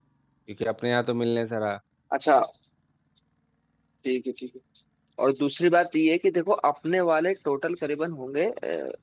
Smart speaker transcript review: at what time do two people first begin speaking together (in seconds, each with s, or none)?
none